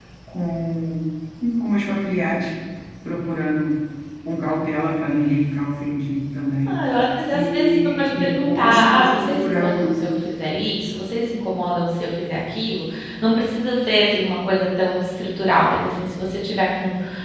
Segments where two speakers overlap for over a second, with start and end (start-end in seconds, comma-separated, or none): 7.3-9.9